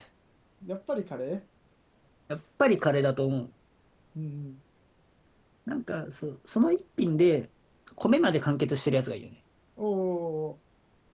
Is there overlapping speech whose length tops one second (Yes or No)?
No